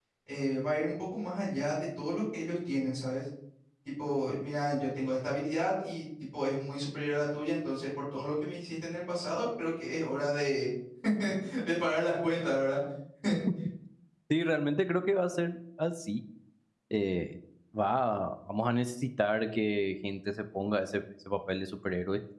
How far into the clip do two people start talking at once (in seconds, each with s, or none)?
none